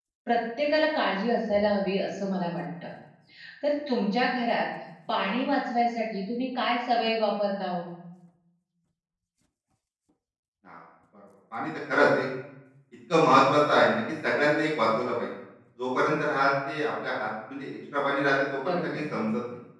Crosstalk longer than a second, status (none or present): none